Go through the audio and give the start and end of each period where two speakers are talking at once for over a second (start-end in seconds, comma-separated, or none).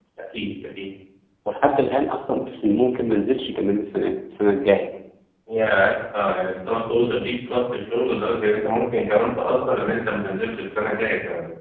none